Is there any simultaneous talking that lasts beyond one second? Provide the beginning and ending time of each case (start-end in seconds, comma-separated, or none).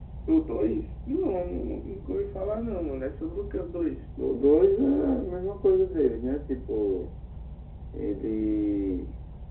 none